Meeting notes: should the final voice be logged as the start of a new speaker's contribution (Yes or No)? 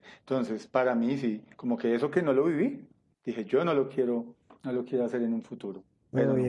Yes